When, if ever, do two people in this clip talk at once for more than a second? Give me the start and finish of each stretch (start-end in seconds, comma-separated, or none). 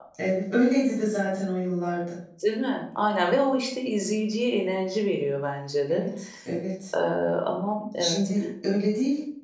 none